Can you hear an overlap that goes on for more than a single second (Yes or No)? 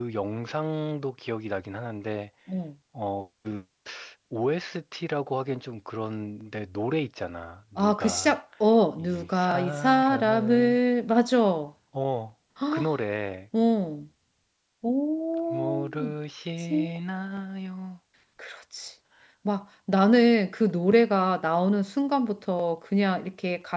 Yes